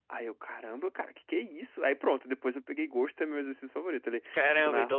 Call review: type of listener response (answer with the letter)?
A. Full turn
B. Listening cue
A